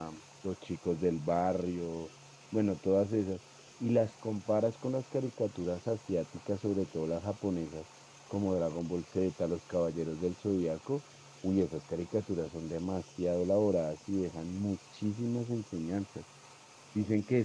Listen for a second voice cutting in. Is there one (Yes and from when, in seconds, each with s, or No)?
No